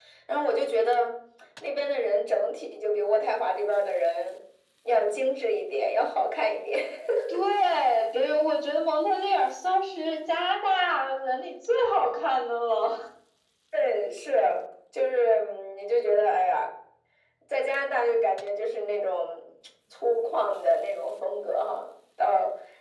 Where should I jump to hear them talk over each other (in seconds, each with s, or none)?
none